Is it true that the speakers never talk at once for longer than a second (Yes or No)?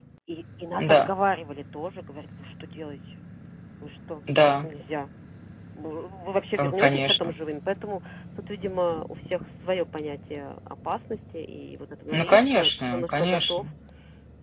No